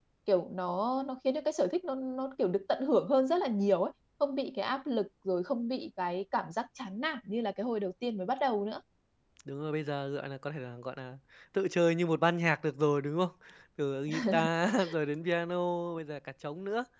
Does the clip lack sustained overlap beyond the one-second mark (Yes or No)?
Yes